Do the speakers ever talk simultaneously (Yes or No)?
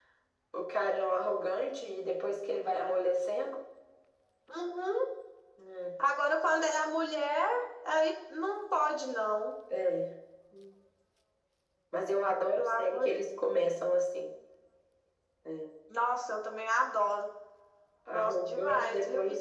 Yes